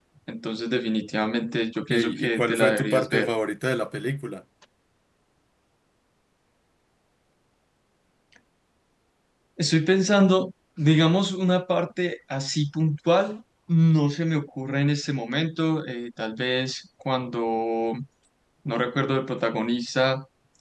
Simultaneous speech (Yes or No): Yes